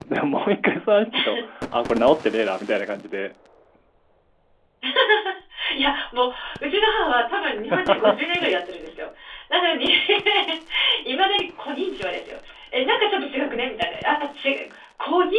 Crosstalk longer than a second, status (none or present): none